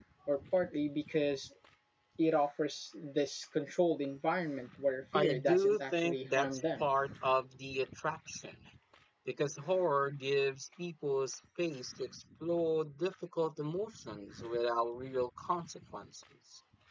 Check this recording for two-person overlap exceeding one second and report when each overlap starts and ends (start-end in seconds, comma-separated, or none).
5.1-6.8